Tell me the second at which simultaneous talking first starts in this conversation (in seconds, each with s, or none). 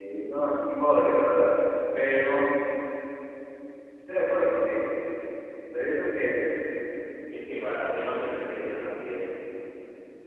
none